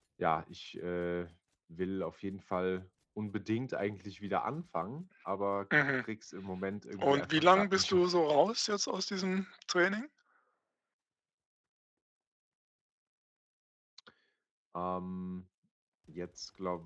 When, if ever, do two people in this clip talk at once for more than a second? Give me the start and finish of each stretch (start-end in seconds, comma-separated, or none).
7.0-8.4